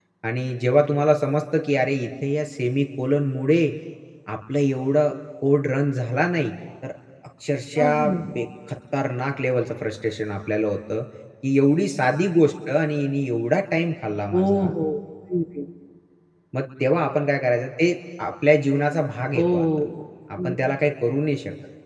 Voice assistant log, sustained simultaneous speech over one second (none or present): none